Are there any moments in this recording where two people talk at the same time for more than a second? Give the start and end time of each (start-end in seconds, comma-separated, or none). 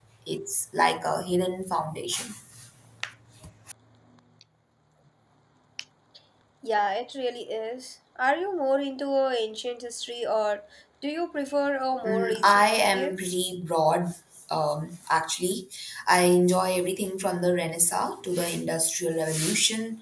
12.1-13.3